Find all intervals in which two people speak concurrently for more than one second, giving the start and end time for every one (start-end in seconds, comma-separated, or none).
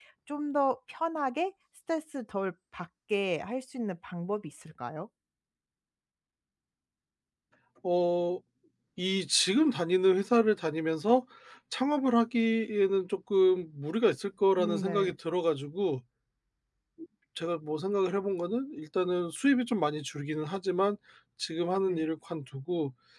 none